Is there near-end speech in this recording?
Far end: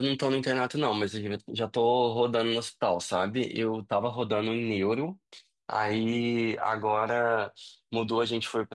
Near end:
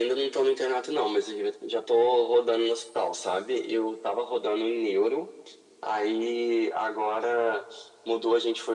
No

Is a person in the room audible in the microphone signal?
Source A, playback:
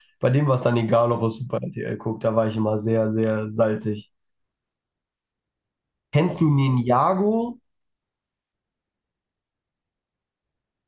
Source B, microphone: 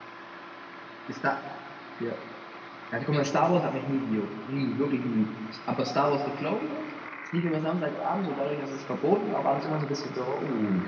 Yes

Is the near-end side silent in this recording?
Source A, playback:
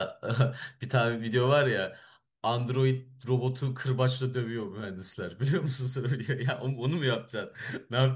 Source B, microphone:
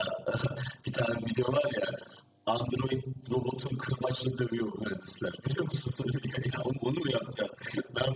Yes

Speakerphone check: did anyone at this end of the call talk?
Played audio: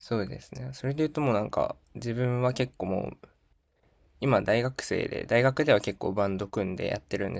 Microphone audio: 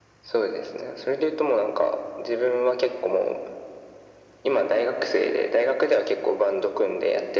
No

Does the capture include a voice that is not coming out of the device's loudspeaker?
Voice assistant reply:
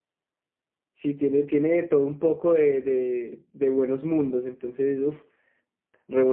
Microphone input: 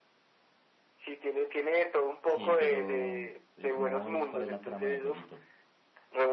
Yes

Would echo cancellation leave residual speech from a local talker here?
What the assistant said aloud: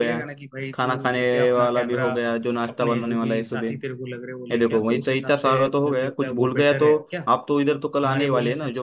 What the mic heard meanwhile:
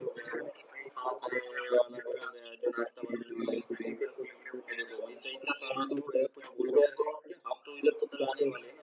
No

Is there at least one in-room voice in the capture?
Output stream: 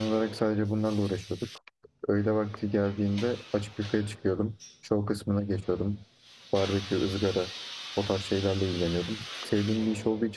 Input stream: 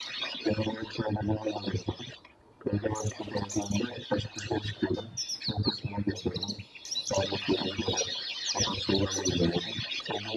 No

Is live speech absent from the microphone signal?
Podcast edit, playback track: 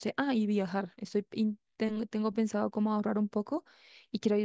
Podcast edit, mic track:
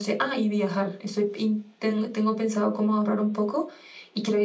Yes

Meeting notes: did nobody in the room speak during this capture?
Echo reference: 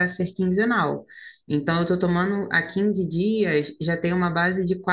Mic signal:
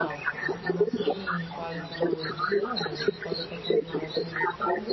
No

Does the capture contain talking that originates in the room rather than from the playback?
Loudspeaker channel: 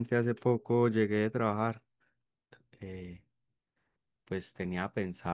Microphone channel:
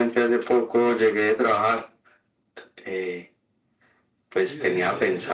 Yes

